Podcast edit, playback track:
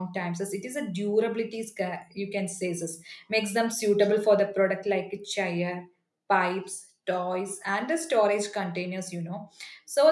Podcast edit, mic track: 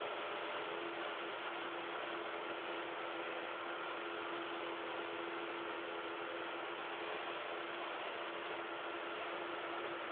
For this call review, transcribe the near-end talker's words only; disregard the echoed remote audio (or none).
none